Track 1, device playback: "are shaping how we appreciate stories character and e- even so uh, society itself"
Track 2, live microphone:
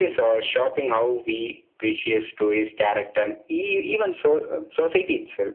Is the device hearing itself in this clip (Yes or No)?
Yes